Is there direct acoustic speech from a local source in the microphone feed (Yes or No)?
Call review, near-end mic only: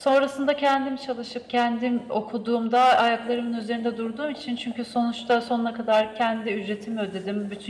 Yes